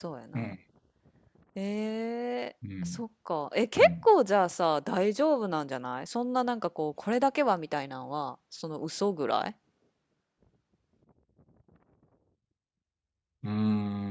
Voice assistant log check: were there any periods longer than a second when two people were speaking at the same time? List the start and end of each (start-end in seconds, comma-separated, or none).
none